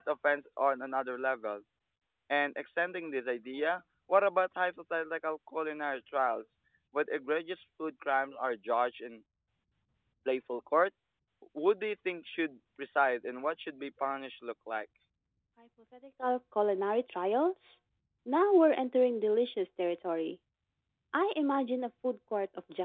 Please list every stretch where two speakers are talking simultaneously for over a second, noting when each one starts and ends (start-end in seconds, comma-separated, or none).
none